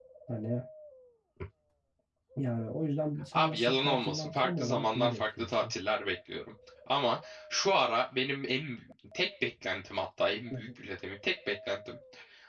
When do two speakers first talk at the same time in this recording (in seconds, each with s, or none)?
3.3 s